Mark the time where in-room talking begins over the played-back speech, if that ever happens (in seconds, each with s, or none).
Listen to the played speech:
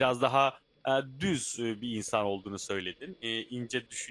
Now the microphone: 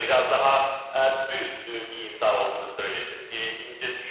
none